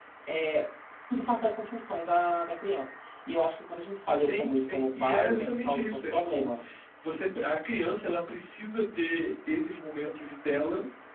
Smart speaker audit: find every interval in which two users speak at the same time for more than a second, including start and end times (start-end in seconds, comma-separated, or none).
4.1-6.5